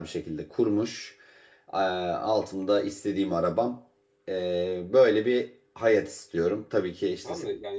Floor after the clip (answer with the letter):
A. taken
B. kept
A